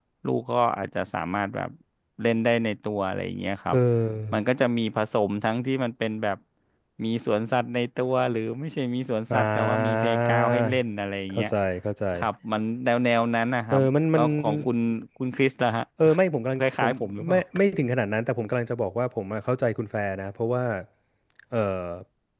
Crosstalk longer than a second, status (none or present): present